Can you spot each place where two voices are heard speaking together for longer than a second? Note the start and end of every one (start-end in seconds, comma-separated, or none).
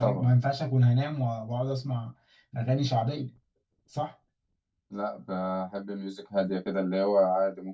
none